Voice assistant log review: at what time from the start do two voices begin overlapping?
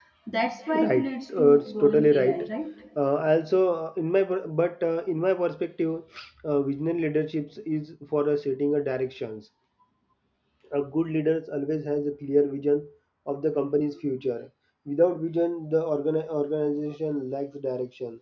0.7 s

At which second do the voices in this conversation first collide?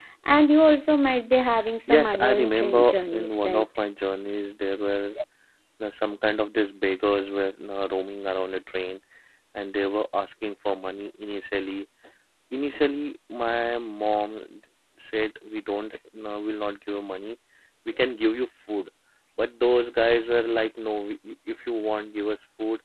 1.9 s

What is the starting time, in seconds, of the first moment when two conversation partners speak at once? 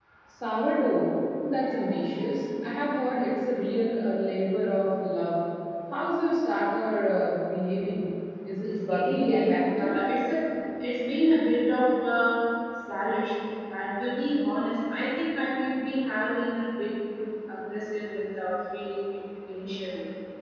8.6 s

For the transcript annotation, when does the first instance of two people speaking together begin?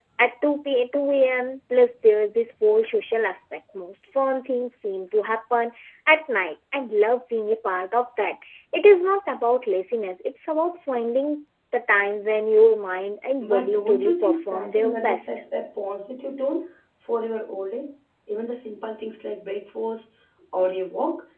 13.4 s

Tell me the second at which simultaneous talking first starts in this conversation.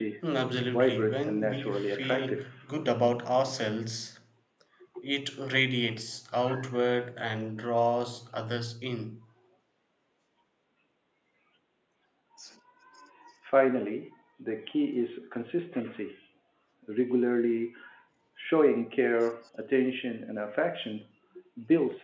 0.7 s

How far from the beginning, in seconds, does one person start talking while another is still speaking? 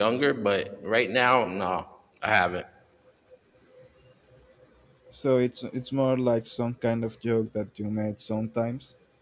none

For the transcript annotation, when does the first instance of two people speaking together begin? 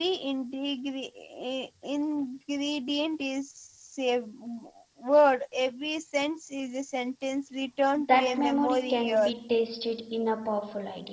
8.0 s

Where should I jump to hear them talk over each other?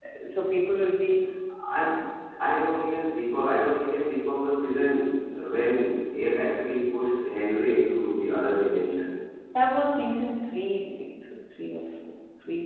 none

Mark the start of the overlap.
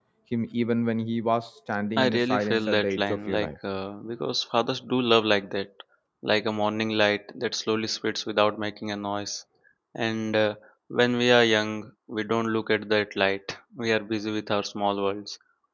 2.0 s

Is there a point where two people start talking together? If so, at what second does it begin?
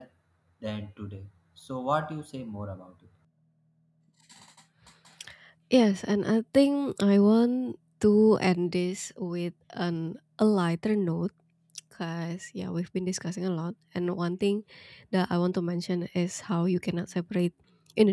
none

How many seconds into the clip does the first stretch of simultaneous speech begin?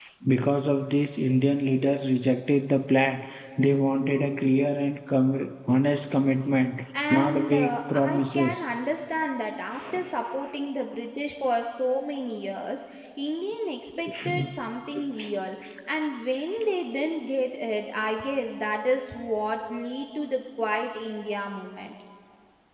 7.1 s

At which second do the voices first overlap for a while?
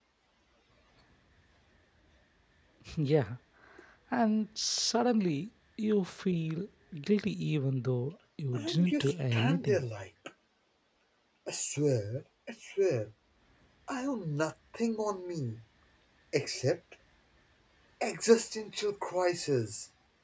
8.5 s

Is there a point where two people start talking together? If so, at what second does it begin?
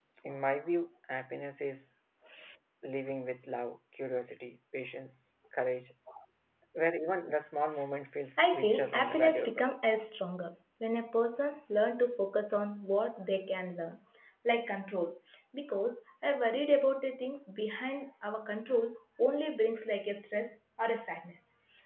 8.4 s

